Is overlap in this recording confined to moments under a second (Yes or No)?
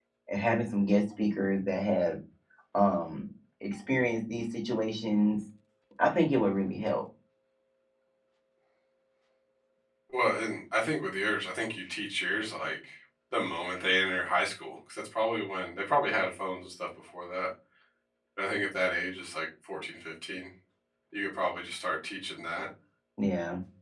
Yes